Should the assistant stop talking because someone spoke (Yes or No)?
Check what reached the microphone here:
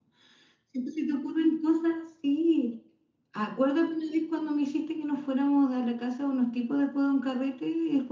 Yes